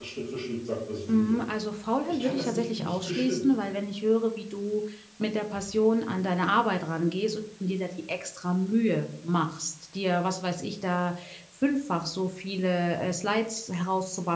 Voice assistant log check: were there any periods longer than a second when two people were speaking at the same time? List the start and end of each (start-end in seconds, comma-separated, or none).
2.1-3.5